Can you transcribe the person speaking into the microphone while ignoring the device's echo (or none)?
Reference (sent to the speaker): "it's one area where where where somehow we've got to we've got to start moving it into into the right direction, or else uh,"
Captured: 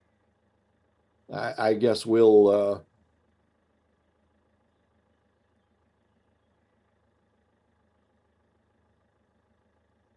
uh, I, I guess we'll uh,